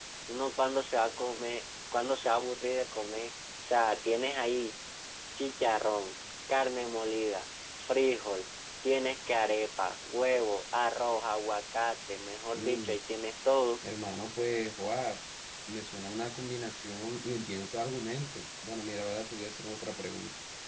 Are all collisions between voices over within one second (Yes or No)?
Yes